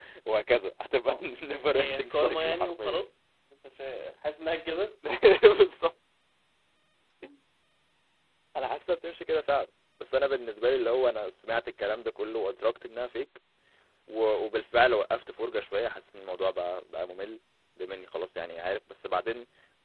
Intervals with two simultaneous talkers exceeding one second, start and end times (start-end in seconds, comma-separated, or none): 1.7-3.0